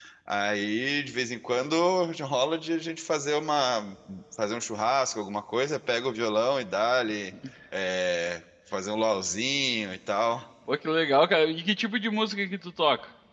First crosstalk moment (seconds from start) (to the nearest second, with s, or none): none